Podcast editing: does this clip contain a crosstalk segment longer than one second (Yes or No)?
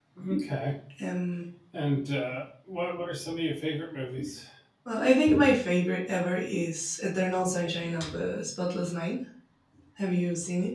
No